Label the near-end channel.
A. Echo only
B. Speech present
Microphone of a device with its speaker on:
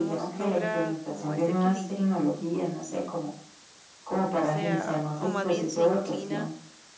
B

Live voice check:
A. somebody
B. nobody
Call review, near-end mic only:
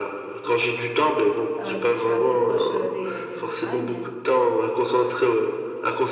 A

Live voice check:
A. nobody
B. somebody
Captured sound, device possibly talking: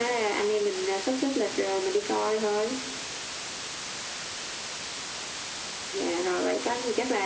A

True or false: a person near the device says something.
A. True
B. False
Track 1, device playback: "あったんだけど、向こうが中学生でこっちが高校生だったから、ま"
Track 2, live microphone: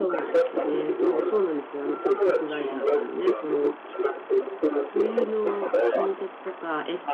A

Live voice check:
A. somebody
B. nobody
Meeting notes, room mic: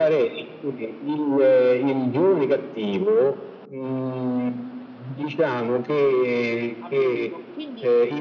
A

